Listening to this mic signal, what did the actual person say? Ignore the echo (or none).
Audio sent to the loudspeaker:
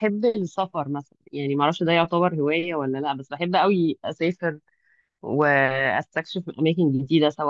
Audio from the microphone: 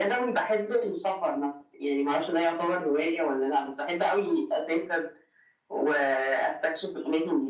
none